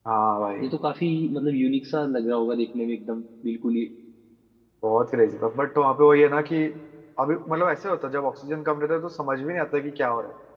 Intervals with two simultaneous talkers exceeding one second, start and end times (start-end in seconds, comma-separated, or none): none